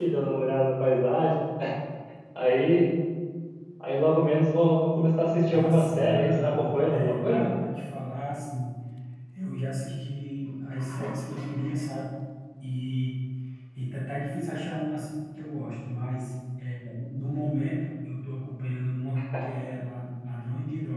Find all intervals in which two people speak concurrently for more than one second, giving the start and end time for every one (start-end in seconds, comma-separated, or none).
5.5-7.5